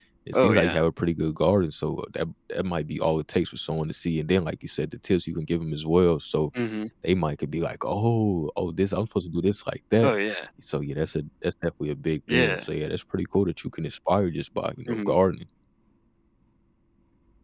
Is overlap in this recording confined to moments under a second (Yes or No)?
Yes